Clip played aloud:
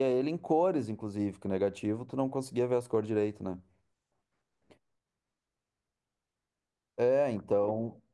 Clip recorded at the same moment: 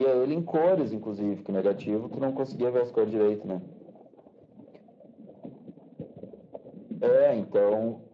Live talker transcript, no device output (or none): none